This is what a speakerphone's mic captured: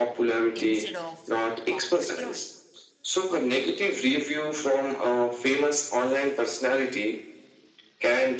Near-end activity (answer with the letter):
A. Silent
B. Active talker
B